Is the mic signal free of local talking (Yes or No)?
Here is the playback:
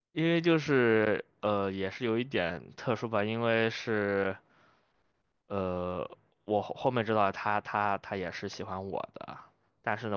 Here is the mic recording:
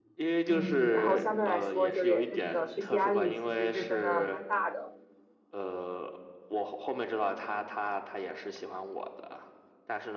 No